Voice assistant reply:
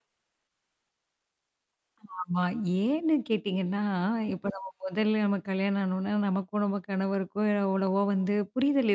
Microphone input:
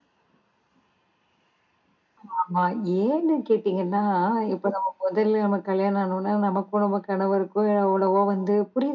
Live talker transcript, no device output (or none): none